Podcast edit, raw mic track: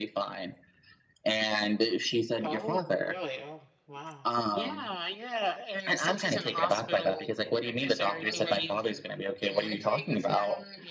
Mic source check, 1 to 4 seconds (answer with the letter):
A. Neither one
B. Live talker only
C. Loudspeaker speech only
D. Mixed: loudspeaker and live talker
D